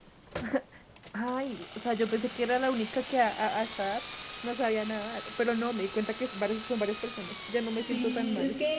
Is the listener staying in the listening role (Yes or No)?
No